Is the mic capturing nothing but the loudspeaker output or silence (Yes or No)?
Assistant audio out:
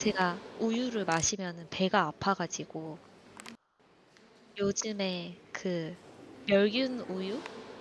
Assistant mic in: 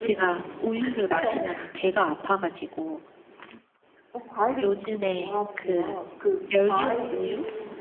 No